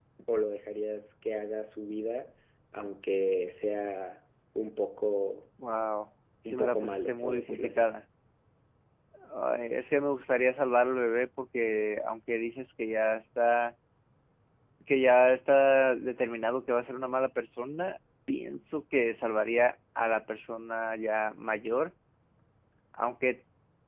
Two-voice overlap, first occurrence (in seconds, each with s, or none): 6.4 s